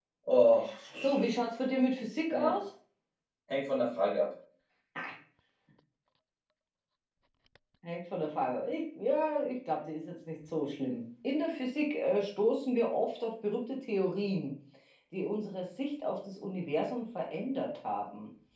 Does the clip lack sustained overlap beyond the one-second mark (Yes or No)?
Yes